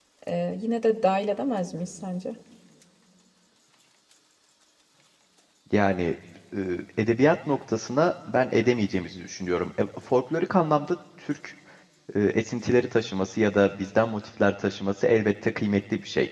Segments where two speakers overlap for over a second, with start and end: none

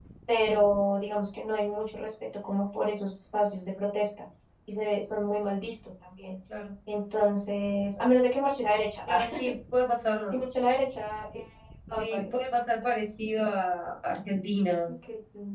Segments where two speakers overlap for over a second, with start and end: none

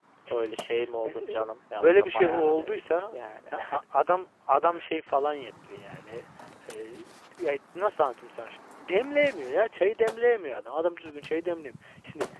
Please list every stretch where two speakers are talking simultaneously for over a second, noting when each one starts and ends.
1.8-3.2

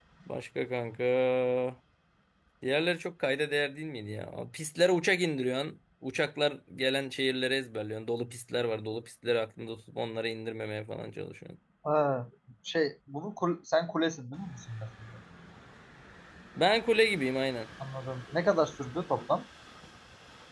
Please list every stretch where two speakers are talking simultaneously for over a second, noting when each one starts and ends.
none

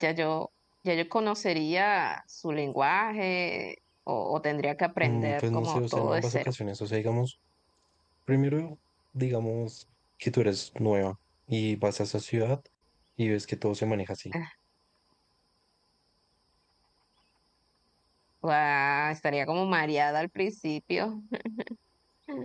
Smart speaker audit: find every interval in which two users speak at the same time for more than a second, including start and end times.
5.0-6.5

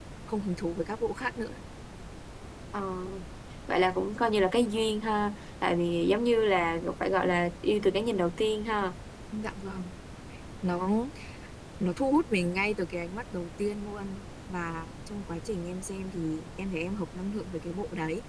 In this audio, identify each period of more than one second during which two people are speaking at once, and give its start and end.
none

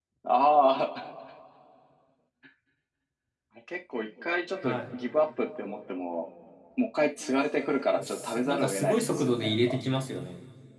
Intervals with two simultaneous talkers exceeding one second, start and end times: 8.0-9.8

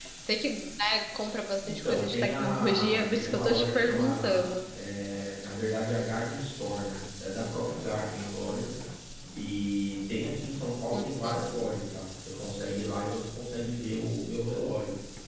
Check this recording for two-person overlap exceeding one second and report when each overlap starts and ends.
1.6-4.5

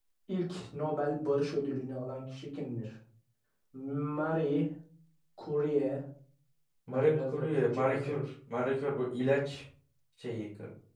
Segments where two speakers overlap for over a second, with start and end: 6.9-8.1

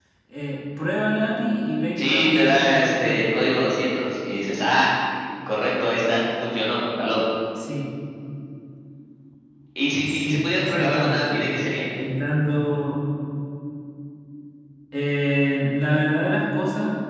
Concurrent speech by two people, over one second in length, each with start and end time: 2.0-3.3, 10.0-11.4

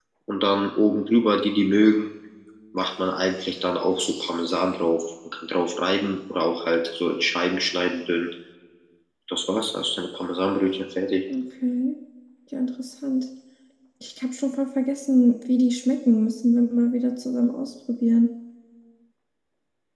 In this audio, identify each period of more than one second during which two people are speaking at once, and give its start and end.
none

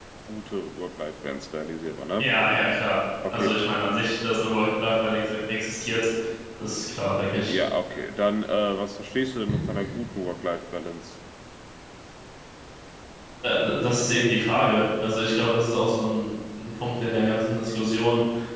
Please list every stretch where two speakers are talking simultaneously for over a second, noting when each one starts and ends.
none

